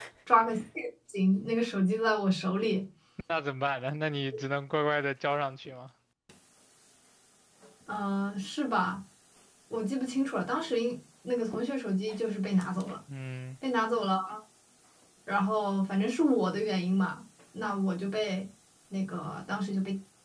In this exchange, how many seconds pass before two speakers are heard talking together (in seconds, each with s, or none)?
none